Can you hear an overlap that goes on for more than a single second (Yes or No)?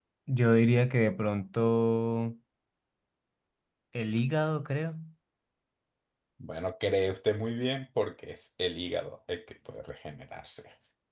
No